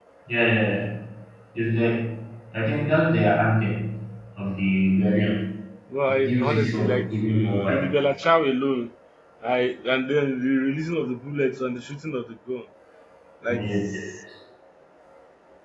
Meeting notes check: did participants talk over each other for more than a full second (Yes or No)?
Yes